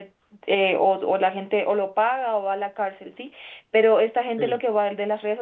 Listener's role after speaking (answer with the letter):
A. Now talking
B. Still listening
B